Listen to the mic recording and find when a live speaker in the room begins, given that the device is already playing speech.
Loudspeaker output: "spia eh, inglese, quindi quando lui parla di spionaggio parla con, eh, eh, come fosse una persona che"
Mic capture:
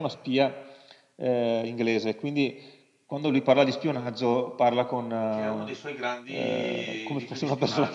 5 s

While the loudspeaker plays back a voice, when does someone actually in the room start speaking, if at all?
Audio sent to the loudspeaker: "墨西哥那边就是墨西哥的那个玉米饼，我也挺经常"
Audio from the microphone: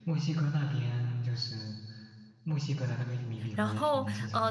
4 s

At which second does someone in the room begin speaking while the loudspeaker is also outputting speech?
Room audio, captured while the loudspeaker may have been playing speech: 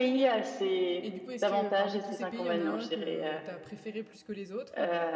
1 s

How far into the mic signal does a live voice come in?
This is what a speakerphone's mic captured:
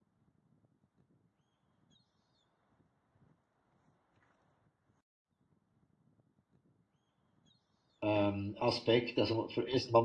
8 s

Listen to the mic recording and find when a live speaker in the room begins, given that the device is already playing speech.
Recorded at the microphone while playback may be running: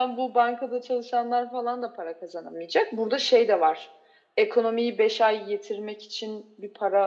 none

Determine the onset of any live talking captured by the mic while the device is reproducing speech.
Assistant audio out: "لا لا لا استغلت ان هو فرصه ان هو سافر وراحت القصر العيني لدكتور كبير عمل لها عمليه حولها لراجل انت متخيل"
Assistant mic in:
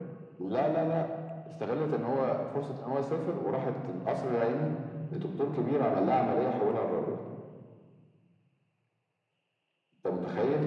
none

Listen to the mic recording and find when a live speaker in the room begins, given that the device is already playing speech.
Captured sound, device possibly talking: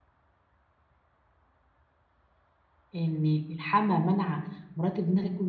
3 s

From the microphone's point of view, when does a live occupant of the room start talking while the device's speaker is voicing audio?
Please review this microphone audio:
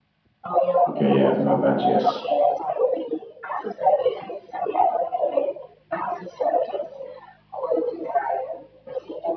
1 s

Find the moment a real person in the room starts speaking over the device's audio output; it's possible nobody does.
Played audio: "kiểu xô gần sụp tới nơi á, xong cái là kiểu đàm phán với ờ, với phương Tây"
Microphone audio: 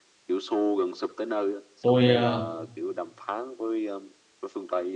2 s

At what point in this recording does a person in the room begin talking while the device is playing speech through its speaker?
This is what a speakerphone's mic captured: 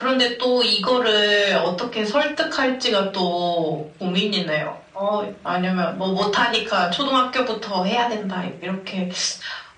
none

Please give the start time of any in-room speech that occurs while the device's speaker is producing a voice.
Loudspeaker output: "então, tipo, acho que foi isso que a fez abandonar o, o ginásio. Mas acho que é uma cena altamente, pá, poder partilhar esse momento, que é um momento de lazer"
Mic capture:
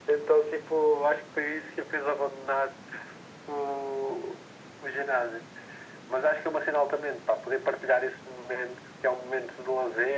none

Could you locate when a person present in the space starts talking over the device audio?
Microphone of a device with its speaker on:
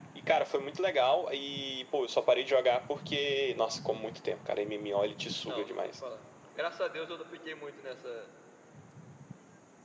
5 s

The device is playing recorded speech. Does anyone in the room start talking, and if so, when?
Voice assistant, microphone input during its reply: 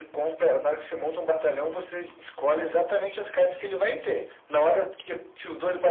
none

